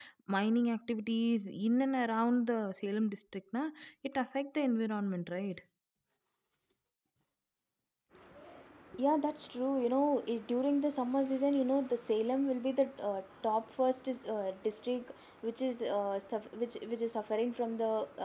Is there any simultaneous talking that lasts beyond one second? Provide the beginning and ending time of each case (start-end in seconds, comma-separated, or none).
none